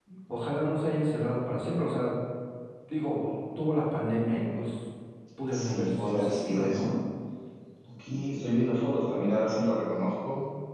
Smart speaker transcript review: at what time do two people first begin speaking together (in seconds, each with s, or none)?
5.5 s